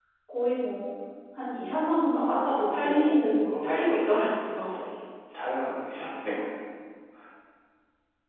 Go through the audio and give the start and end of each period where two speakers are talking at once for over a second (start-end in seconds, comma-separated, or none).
2.1-3.9